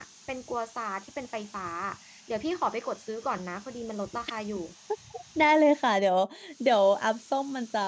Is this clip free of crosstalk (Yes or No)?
Yes